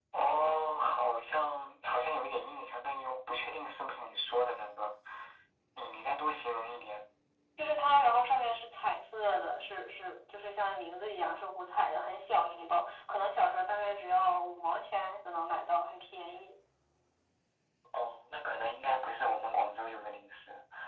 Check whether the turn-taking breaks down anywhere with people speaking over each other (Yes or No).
No